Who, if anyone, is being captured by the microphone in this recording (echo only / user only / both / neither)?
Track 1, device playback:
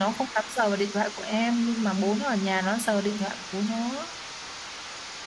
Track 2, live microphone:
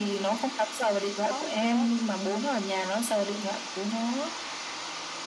both